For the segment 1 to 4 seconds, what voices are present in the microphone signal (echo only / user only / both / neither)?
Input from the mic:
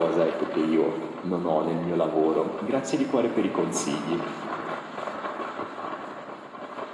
echo only